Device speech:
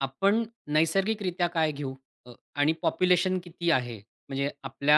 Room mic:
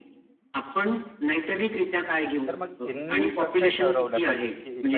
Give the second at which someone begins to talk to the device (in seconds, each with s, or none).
2.5 s